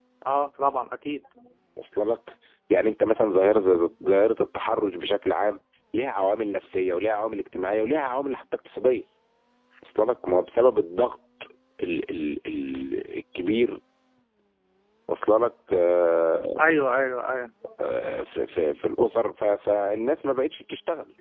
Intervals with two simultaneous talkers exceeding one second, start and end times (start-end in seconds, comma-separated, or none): none